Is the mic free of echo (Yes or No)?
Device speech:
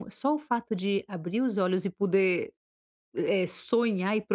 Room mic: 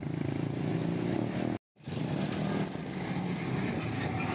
Yes